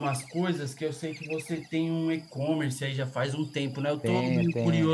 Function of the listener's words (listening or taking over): listening